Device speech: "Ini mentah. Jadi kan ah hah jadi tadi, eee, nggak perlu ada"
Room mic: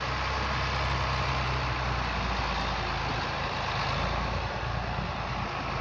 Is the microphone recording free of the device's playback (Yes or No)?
Yes